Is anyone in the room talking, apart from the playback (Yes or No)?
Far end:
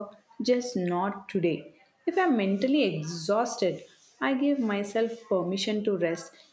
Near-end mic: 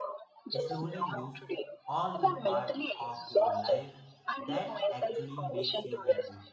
Yes